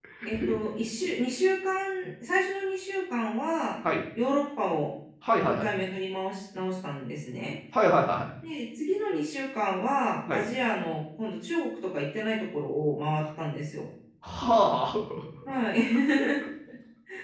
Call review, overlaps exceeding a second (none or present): none